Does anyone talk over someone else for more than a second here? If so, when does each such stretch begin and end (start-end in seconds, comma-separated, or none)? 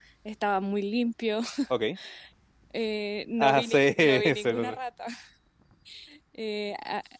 3.4-4.8